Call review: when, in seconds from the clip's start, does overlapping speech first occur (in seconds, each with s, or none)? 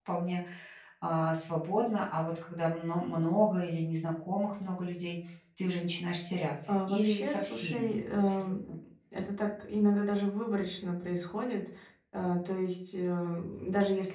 6.7 s